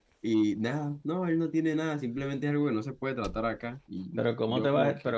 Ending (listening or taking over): taking over